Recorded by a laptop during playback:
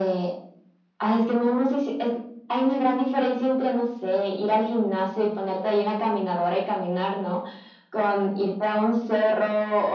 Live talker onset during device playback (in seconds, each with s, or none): none